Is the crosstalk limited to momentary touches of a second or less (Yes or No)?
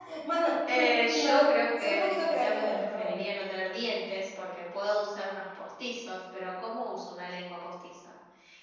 No